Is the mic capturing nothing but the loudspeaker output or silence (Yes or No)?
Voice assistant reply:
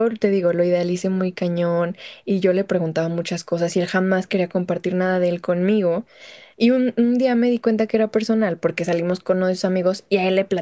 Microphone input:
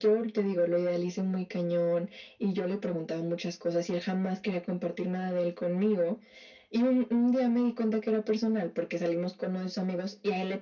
Yes